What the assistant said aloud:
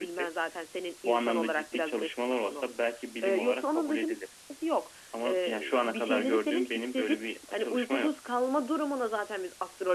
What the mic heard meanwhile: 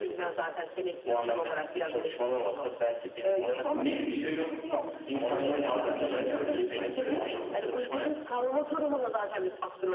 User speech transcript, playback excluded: net bir şey yok. İnsanların algısıyla ilerleniyor sanki bu anlamda.

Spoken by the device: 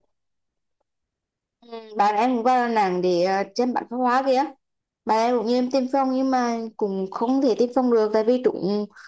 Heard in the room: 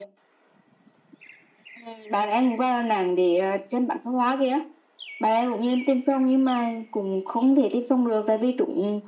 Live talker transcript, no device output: none

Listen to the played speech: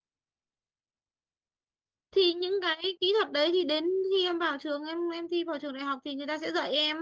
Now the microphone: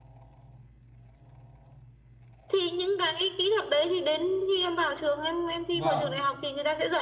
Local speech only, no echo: Vâng.

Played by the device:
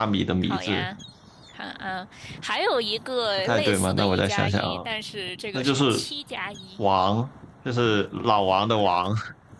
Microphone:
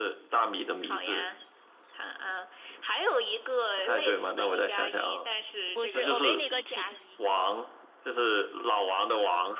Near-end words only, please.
不是，我给你个提，

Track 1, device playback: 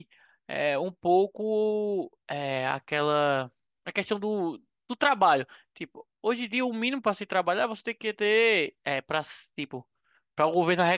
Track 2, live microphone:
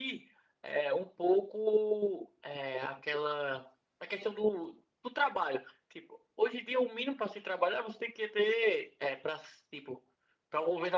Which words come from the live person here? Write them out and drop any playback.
none

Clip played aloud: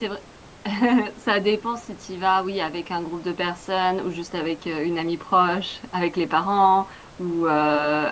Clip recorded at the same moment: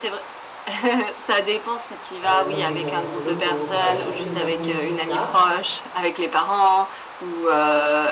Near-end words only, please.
euh, donc les bons restos locaux. Enfin voilà, j'essaye de me renseigner sur ça

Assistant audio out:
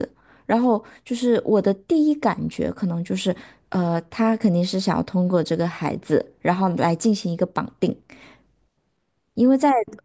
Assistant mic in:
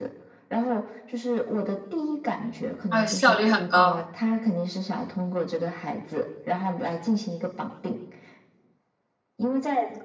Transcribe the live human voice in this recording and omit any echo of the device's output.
而且效率很高，

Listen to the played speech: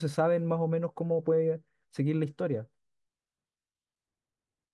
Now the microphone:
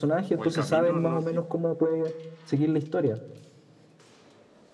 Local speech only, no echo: O El Camino, no sé

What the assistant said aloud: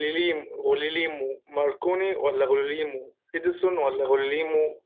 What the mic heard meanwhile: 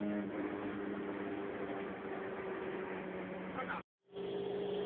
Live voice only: none

